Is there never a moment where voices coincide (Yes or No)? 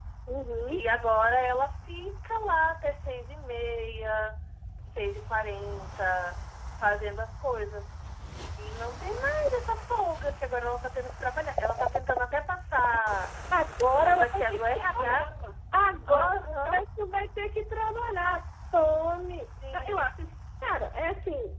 No